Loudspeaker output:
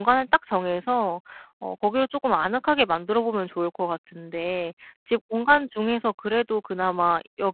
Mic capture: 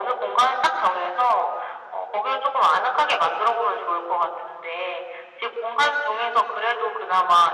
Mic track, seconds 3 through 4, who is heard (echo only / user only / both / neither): echo only